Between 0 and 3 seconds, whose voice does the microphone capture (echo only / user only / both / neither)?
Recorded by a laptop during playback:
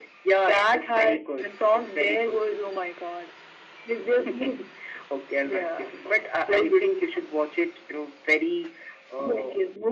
echo only